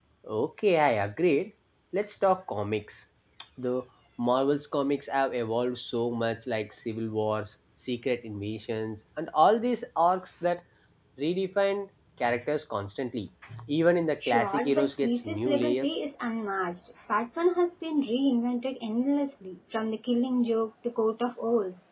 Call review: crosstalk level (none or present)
present